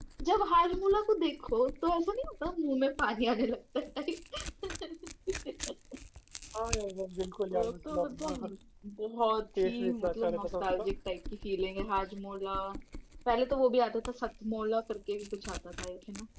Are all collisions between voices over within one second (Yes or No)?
No